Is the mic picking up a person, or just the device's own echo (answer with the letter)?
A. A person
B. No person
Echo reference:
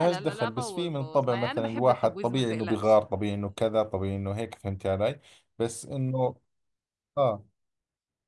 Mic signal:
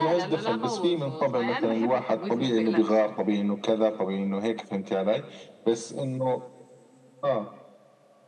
B